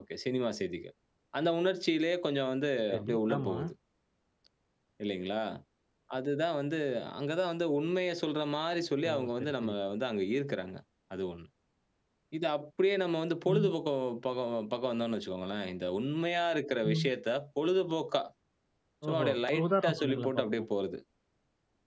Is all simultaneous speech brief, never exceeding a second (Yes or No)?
No